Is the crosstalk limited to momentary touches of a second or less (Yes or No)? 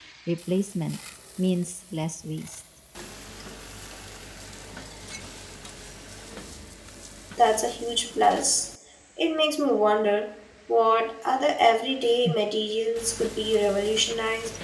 Yes